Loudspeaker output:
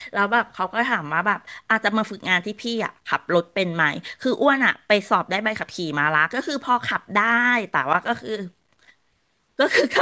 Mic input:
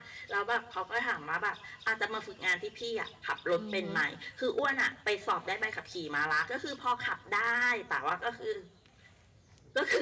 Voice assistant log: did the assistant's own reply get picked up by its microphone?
Yes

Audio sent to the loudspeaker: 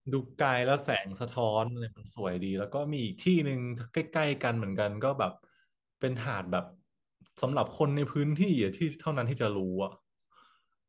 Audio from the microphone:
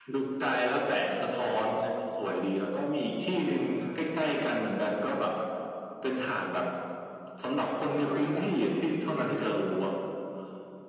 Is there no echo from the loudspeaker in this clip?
No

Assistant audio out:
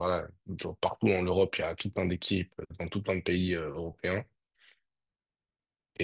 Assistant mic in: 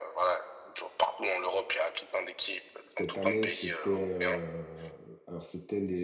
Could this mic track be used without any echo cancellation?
No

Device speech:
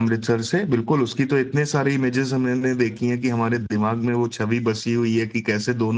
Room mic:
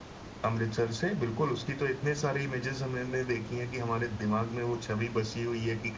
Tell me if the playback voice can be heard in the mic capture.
Yes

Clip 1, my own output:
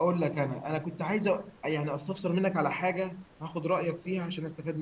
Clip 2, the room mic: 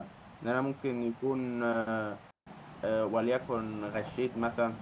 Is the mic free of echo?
Yes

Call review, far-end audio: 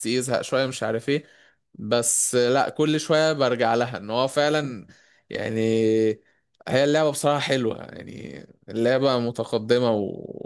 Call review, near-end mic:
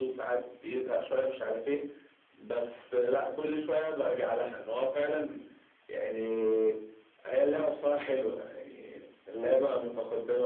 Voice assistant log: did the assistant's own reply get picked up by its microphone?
Yes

